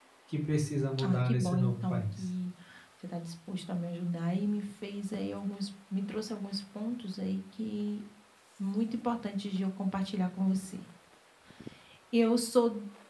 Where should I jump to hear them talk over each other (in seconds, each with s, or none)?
1.0 s